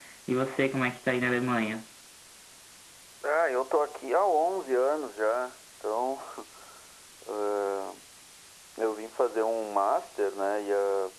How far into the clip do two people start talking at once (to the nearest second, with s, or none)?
none